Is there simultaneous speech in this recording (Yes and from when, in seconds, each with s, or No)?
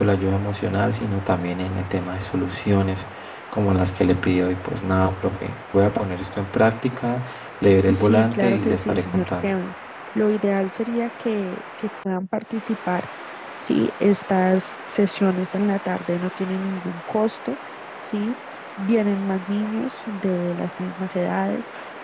Yes, from 7.9 s